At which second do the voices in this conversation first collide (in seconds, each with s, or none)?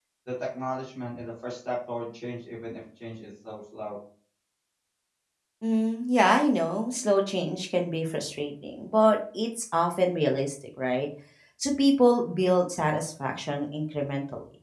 none